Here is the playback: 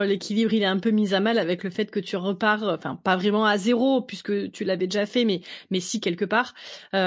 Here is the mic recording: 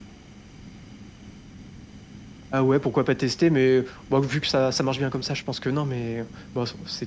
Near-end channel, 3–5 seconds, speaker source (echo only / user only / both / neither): user only